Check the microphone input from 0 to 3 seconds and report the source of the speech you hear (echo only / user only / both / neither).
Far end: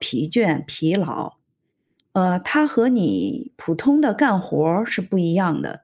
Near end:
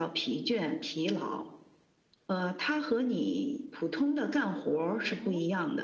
echo only